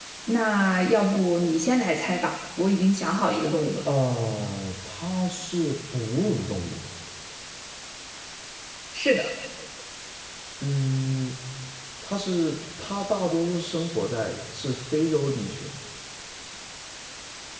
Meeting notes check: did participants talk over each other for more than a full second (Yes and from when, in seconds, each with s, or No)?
No